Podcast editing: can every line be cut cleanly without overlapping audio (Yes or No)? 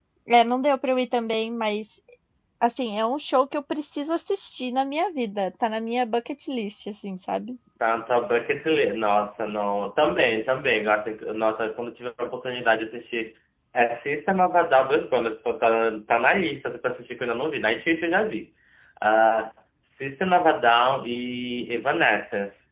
Yes